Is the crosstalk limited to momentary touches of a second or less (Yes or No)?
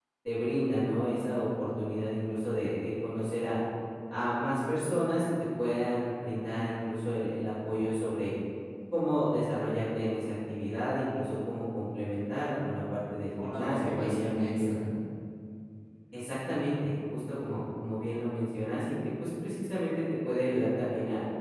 No